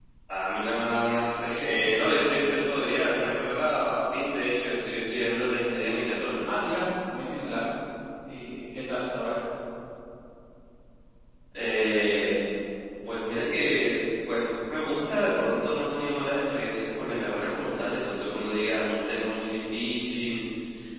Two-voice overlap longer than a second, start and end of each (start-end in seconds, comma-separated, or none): none